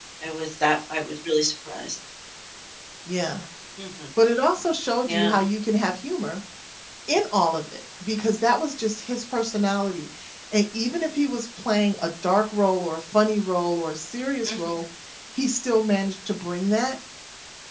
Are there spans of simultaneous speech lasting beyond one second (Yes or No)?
No